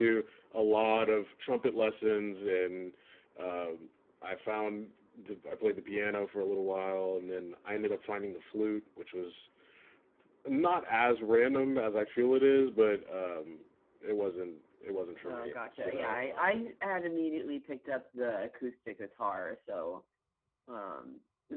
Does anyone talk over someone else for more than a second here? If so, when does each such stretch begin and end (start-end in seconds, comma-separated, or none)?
15.2-16.7